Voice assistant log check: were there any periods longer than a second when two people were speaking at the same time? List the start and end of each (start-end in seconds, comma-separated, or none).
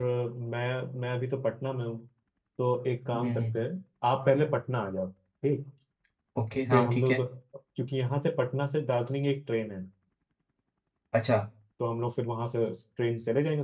none